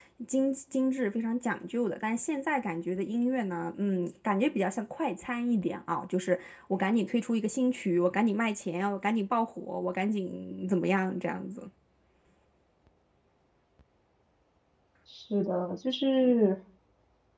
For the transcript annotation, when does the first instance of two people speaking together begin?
none

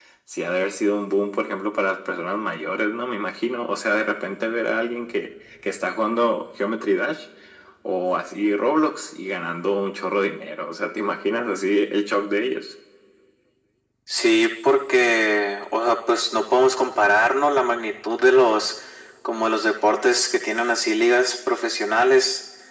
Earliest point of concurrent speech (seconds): none

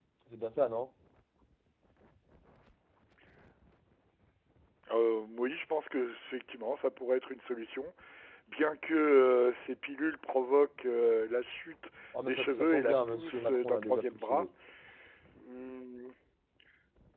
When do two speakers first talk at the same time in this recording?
12 s

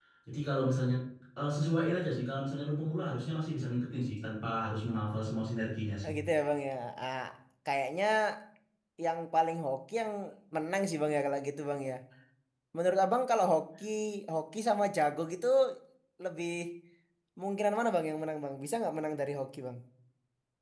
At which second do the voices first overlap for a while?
none

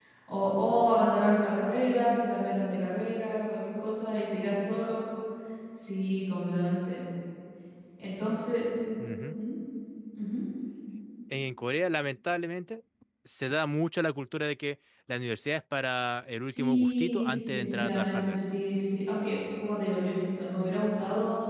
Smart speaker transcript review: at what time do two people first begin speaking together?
16 s

